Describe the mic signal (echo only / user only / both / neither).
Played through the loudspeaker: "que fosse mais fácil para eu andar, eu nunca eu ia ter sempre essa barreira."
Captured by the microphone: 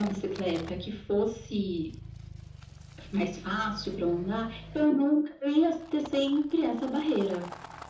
echo only